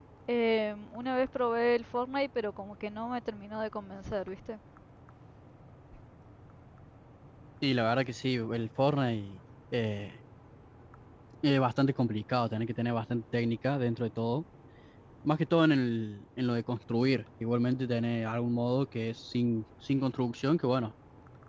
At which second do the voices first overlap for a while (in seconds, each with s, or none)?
none